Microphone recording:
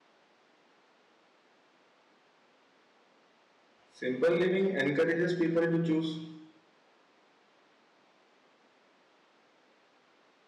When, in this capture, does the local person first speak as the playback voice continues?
3.9 s

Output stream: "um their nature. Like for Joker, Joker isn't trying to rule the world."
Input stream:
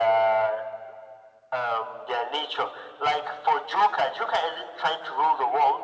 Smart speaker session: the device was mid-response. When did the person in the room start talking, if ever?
none

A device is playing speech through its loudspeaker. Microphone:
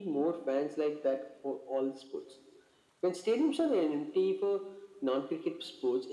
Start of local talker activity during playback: none

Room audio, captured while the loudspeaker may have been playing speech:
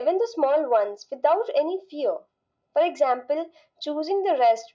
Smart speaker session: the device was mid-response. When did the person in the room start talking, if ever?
none

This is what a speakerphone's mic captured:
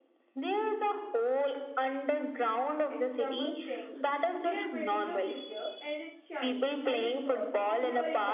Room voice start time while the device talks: 2.9 s

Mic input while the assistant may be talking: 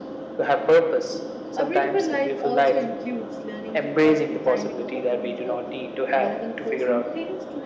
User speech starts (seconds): 1.5 s

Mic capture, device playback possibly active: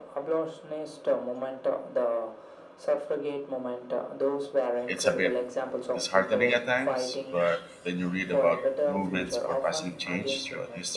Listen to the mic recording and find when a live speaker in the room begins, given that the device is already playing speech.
4.9 s

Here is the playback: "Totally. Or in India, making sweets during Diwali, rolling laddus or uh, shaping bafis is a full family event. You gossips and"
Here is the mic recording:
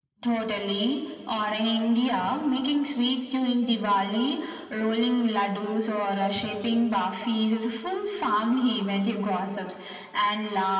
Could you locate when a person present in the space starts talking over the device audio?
none

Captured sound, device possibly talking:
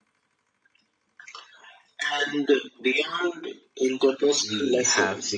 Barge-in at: 4.4 s

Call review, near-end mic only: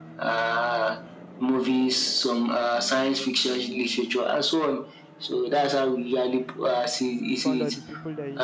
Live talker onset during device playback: 7.2 s

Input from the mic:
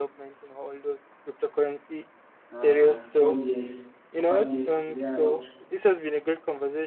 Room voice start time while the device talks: 2.5 s

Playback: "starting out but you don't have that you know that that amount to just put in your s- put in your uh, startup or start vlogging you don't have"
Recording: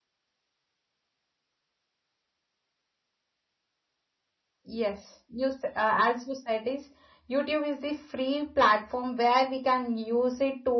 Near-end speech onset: 4.6 s

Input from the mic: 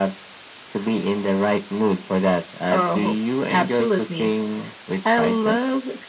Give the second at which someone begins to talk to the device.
none

